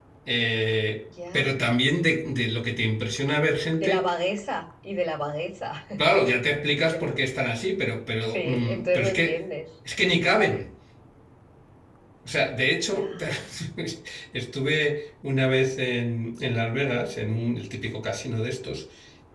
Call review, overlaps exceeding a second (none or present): present